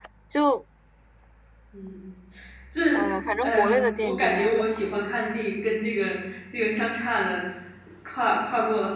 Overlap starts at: 3 s

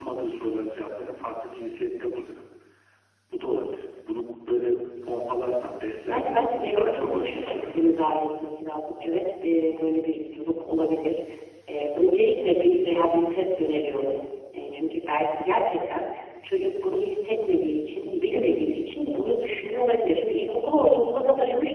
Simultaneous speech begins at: 6 s

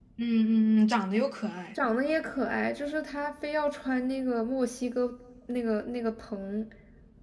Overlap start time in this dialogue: none

